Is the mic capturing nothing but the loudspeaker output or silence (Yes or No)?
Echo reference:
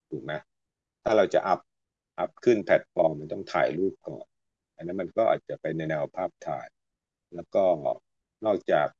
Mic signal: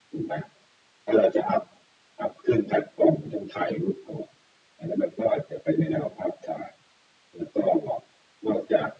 Yes